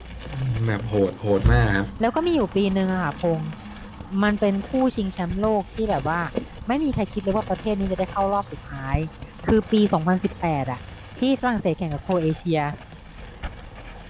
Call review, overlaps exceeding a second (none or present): none